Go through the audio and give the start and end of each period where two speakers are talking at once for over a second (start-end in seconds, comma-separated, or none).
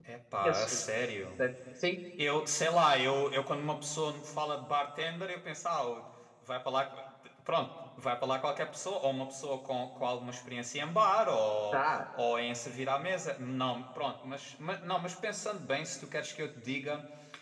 none